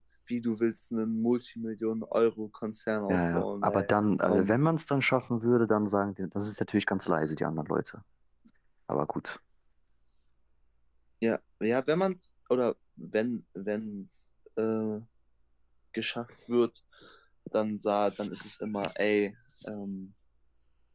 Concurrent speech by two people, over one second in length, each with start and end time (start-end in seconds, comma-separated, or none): 3.1-4.5